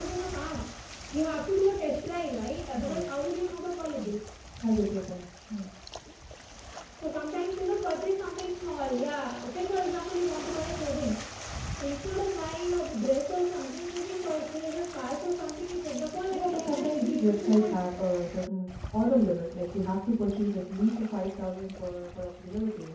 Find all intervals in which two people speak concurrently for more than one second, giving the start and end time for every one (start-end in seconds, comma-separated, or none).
16.3-17.8